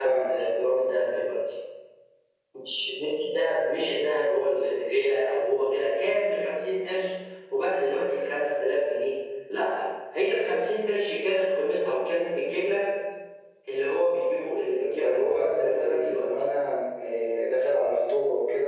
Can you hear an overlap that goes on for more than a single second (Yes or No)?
Yes